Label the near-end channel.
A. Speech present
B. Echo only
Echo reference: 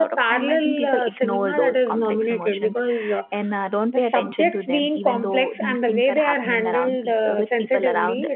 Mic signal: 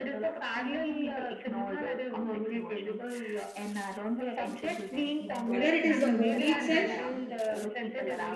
A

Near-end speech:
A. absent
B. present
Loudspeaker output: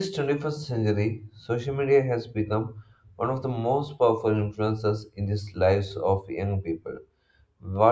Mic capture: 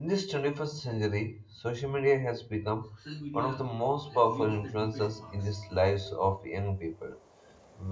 B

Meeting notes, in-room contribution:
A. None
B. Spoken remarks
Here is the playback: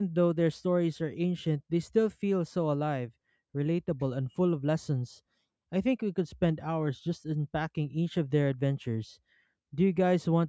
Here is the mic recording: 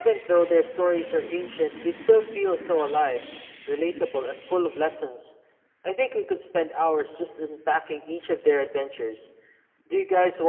A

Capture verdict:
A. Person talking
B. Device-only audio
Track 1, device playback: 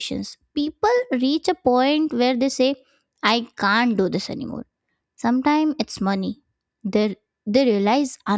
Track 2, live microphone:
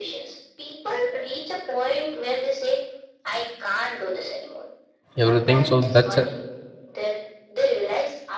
A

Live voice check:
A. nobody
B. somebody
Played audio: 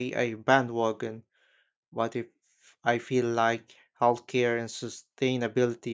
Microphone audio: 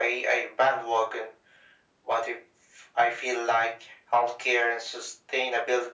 A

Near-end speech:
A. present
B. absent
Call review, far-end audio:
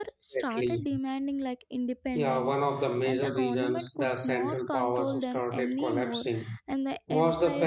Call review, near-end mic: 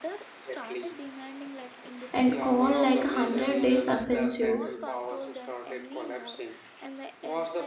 A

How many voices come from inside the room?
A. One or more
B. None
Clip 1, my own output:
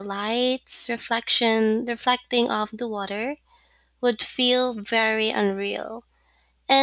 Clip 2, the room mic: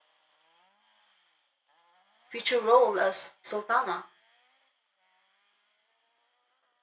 A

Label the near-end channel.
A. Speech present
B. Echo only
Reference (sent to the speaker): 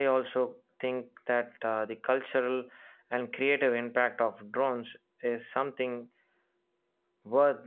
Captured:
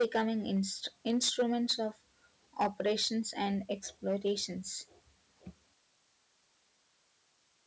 A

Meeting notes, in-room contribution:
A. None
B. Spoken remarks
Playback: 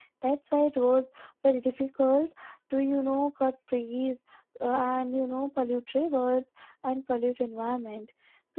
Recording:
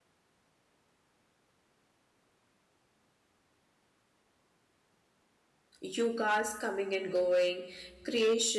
B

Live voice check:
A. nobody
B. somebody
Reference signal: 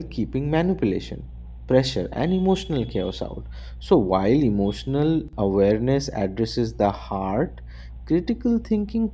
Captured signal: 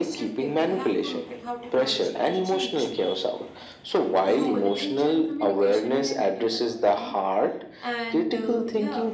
B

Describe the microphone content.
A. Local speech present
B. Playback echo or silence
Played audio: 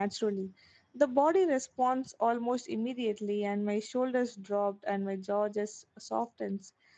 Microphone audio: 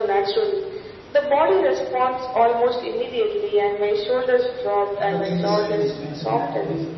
A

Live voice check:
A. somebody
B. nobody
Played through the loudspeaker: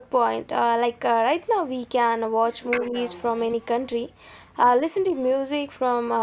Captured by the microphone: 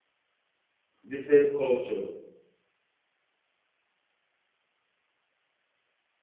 A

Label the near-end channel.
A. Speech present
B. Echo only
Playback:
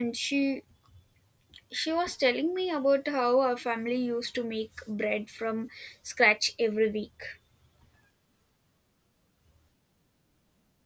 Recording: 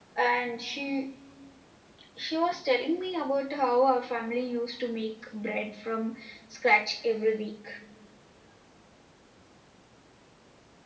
B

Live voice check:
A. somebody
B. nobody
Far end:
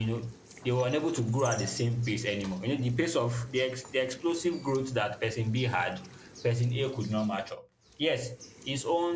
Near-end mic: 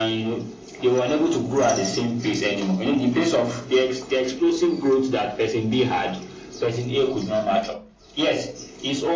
B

